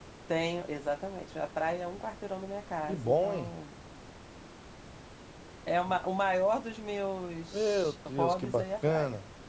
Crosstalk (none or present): present